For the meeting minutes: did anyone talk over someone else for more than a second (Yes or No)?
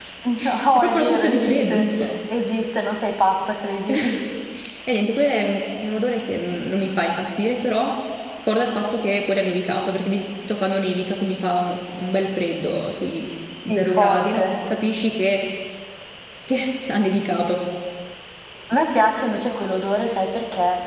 Yes